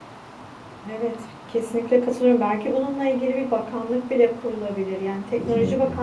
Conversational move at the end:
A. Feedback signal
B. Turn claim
A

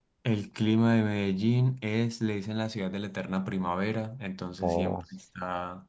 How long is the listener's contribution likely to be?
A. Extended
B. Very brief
B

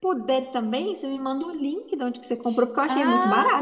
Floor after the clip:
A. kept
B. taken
B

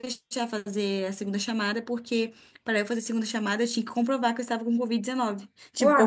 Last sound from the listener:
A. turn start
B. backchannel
B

